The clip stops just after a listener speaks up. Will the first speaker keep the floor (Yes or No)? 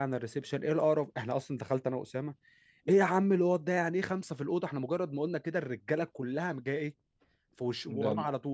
Yes